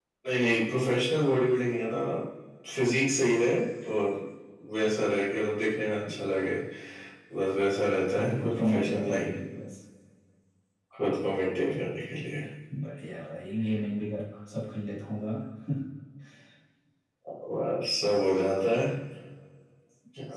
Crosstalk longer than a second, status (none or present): present